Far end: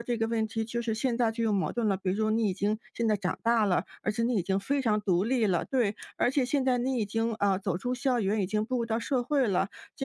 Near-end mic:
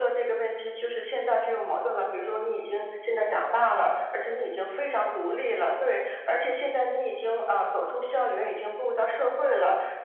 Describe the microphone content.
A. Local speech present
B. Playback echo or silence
B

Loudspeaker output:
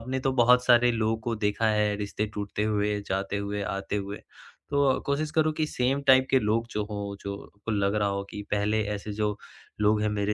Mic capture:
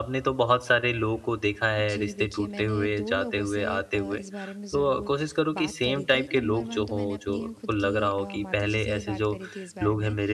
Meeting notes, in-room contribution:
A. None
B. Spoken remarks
B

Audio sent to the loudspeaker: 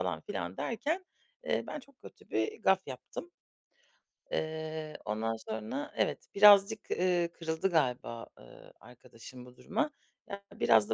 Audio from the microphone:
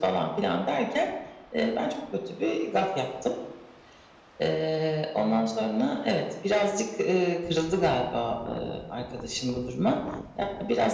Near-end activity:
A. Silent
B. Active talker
A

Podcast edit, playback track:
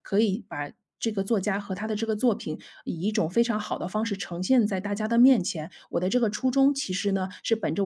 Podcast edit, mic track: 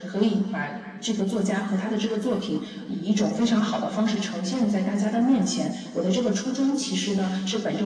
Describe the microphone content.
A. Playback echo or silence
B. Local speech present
B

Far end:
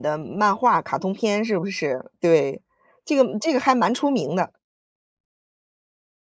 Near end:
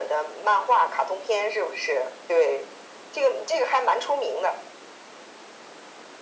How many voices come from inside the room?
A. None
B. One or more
A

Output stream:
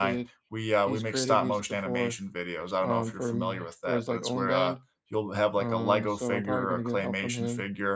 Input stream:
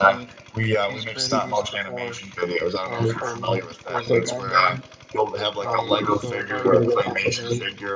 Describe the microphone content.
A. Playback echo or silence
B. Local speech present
A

